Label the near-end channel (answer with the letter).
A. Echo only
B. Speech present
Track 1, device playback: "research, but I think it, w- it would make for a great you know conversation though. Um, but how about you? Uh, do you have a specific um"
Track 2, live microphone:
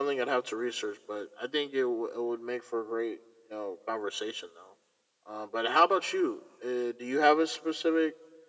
A